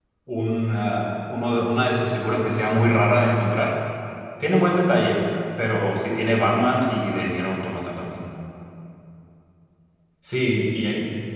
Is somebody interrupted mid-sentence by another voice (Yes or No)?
No